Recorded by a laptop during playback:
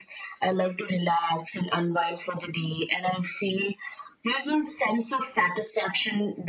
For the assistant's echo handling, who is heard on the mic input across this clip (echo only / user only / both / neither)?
echo only